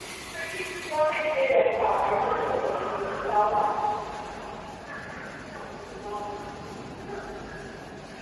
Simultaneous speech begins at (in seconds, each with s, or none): 1.9 s